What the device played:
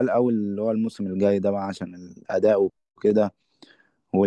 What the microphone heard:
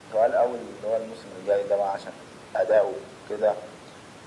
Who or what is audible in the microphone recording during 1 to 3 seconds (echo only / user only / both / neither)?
echo only